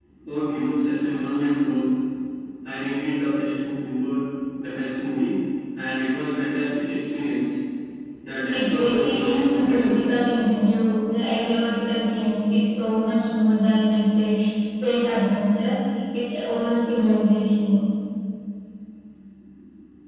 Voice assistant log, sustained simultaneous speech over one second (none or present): present